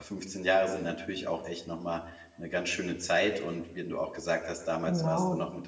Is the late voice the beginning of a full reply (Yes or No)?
No